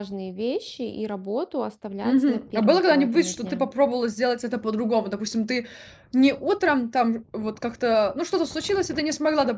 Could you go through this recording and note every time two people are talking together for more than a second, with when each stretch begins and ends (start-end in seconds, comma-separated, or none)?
2.0-3.7